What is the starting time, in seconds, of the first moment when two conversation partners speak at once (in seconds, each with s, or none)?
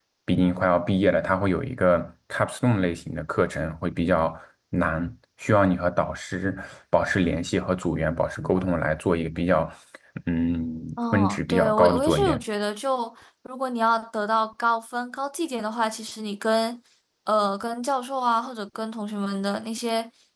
11.1 s